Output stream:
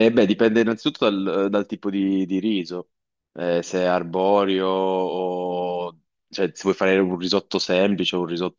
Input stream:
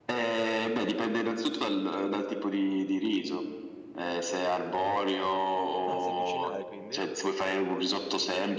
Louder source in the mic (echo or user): echo